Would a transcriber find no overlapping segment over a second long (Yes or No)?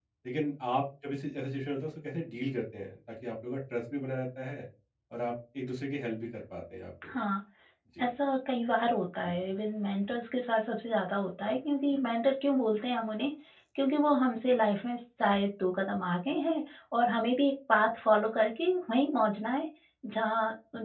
Yes